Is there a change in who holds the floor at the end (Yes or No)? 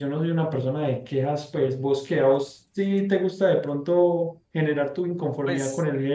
Yes